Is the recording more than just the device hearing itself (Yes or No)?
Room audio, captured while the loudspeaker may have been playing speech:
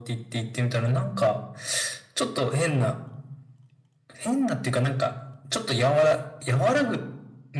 No